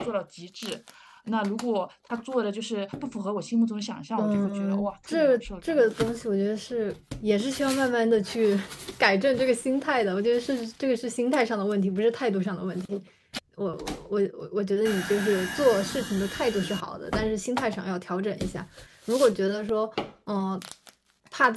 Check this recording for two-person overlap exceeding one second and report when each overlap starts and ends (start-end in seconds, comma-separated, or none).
4.2-5.8